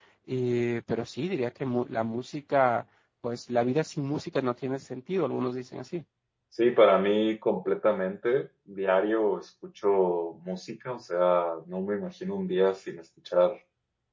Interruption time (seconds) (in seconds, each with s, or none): none